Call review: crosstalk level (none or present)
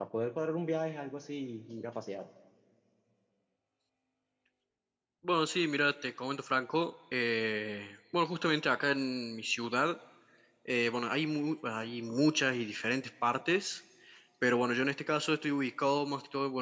none